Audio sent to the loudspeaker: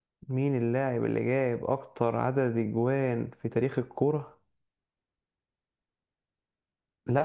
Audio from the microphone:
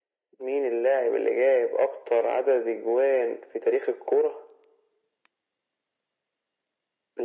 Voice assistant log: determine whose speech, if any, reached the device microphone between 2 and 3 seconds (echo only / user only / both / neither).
echo only